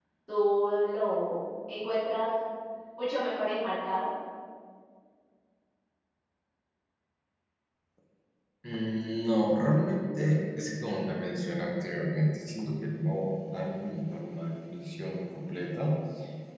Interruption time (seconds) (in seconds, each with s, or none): none